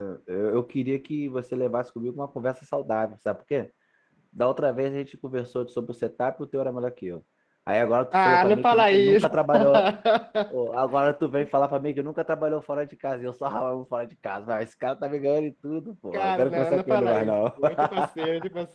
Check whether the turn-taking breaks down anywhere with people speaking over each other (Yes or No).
Yes